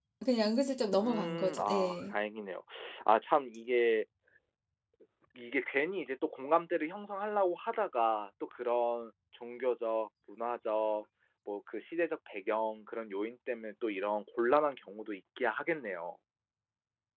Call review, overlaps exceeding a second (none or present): present